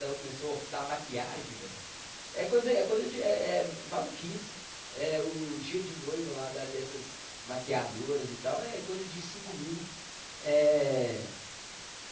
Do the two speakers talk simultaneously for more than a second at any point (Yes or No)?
No